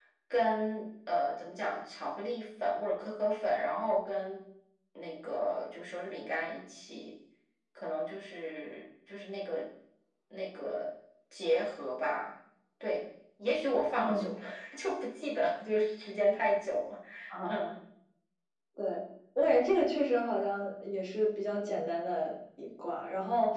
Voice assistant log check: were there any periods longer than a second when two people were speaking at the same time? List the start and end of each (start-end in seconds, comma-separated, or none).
none